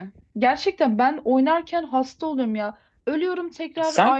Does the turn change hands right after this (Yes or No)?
No